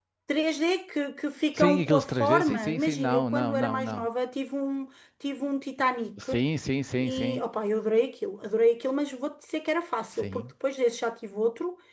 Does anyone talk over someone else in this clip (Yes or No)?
Yes